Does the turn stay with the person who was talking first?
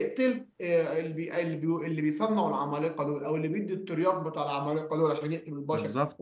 Yes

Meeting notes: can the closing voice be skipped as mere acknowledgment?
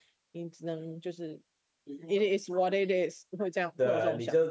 No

